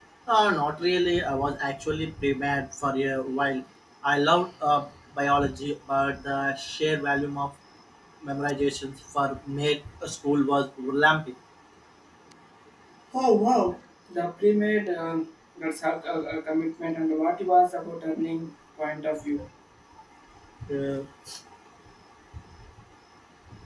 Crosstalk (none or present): none